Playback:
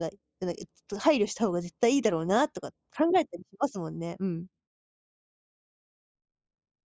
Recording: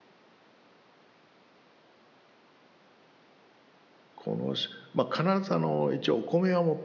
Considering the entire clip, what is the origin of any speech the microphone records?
user only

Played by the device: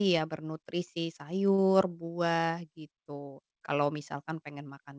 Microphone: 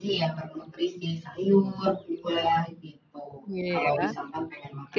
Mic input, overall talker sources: both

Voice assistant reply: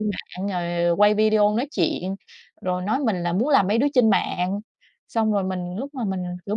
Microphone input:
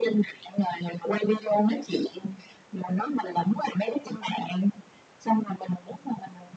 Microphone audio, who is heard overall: echo only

